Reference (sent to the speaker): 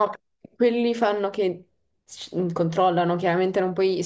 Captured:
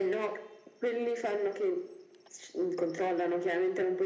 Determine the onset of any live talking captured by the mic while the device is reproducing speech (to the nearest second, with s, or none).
none